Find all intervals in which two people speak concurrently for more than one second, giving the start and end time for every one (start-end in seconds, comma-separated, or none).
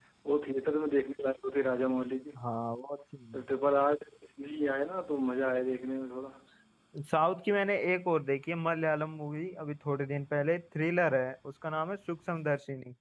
none